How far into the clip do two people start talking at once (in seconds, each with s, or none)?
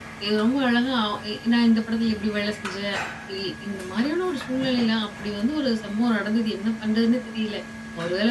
none